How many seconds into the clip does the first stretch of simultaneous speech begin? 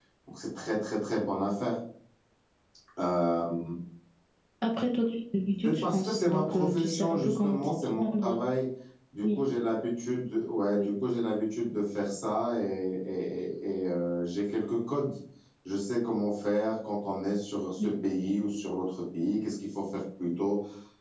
6 s

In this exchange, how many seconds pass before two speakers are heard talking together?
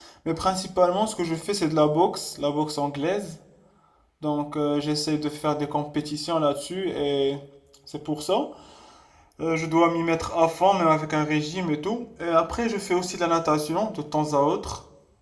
none

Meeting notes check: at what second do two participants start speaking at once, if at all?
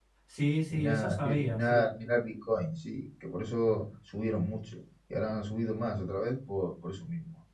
1 s

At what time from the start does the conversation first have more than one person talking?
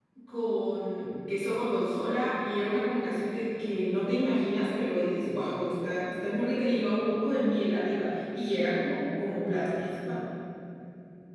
none

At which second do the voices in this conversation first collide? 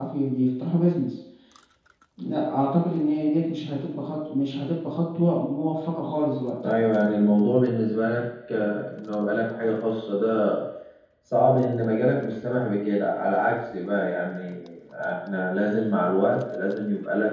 none

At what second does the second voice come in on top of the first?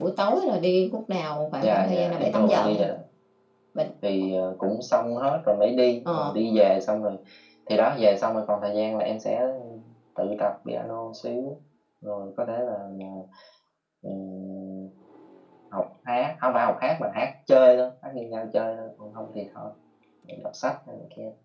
2 s

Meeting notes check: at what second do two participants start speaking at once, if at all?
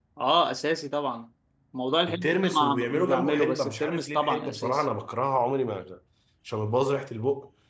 2 s

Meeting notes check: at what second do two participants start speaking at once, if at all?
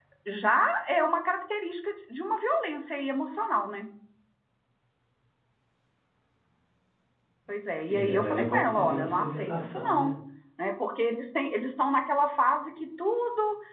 8 s

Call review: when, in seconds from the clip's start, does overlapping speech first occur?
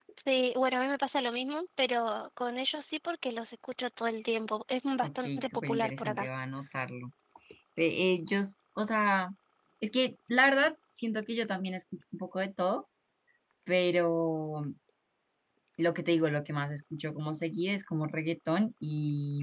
5 s

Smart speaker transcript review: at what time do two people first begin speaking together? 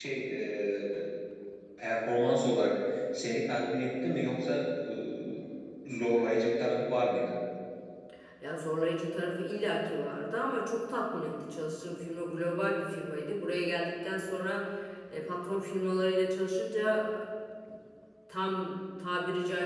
none

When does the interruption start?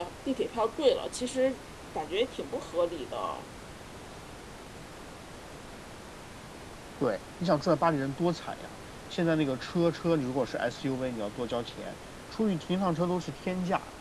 none

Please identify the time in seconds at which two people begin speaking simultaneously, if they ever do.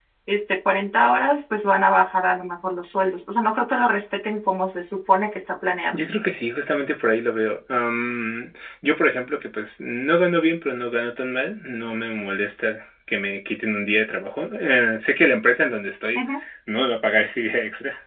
none

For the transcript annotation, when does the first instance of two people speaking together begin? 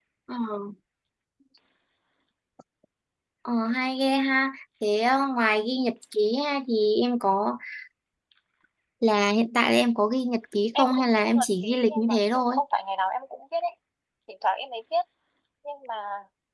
11 s

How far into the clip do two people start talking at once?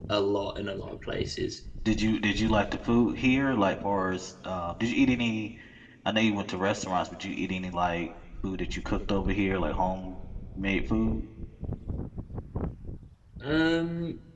none

